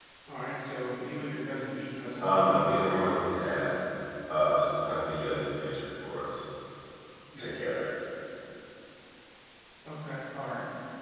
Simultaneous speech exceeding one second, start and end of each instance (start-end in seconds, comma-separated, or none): 2.2-3.7